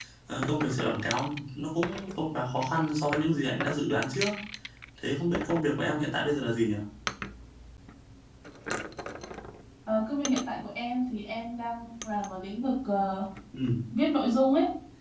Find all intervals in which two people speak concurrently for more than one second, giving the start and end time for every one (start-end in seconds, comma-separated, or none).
none